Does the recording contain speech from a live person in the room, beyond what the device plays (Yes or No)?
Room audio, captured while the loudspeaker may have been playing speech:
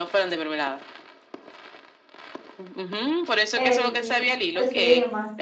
Yes